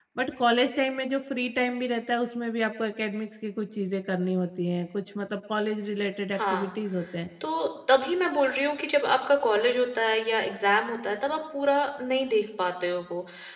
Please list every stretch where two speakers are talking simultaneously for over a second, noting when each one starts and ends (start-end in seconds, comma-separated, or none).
none